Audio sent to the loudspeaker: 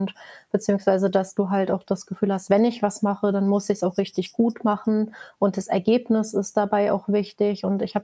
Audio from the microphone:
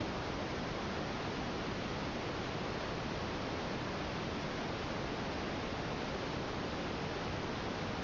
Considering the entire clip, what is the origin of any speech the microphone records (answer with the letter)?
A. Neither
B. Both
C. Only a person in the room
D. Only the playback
A